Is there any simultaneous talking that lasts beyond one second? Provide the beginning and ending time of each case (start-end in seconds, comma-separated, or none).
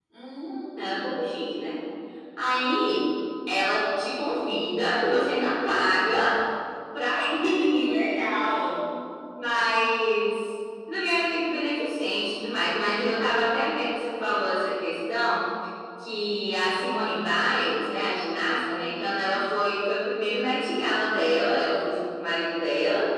none